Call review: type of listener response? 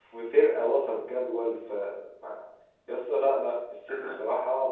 listening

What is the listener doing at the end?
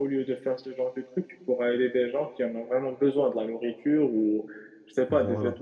listening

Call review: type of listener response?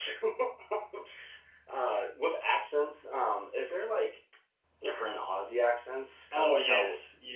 taking over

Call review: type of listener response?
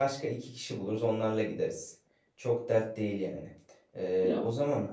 listening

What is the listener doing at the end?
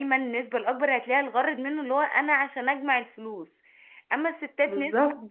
listening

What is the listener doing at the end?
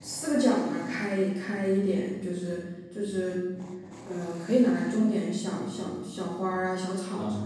taking over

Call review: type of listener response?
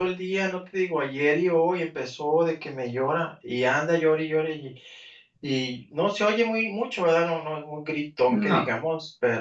listening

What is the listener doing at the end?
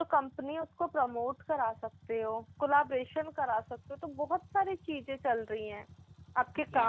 listening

